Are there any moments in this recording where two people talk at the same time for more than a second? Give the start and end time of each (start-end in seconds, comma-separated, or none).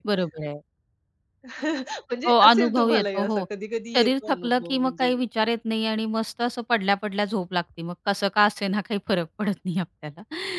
2.2-3.5, 4.0-5.2